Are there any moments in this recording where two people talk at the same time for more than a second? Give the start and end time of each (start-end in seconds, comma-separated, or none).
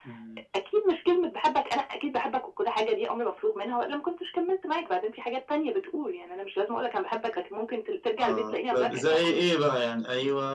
8.2-9.4